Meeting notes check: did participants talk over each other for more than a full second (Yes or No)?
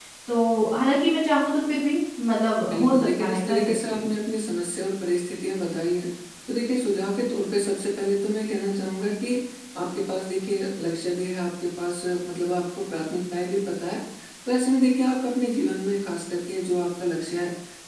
Yes